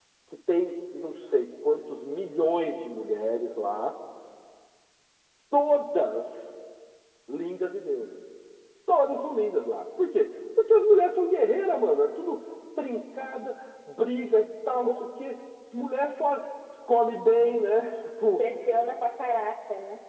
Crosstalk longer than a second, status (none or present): none